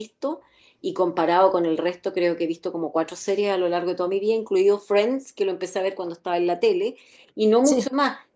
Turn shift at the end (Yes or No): No